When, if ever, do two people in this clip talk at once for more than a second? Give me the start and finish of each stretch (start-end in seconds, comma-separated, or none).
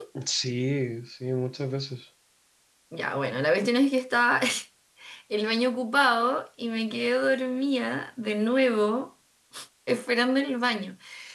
none